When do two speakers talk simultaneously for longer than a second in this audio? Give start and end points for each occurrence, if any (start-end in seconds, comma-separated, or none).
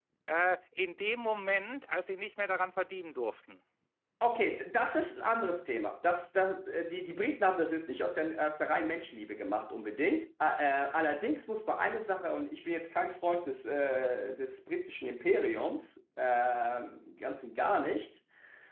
none